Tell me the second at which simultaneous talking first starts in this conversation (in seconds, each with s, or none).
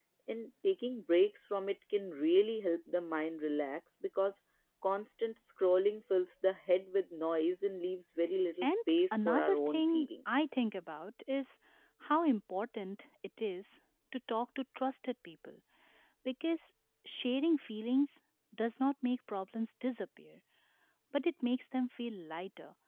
8.6 s